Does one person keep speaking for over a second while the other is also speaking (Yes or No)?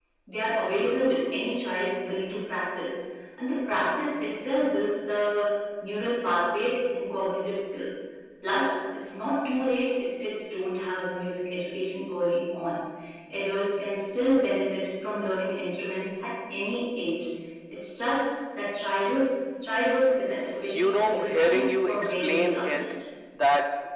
Yes